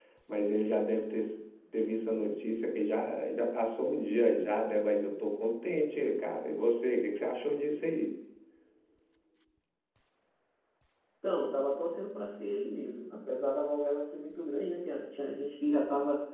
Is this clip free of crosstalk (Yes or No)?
Yes